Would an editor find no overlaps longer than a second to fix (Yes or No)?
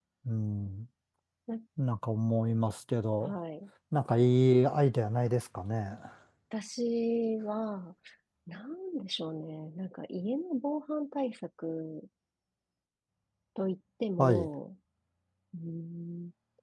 Yes